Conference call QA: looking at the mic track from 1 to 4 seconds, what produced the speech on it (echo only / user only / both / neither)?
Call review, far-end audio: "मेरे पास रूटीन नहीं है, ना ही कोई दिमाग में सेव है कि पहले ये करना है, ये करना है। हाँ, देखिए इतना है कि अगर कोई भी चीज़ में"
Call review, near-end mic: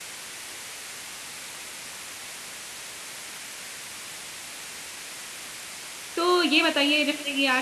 neither